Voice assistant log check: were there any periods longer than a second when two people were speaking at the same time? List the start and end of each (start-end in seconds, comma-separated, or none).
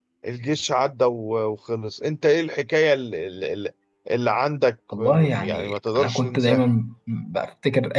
5.0-6.6